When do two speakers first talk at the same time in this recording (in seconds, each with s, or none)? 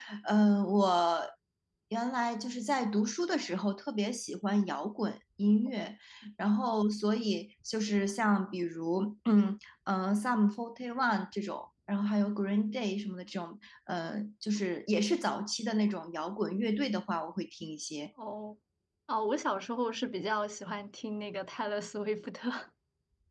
none